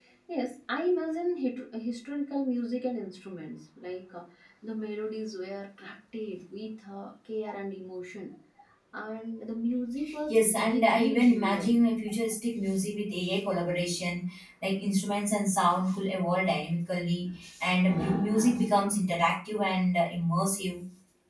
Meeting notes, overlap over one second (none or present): present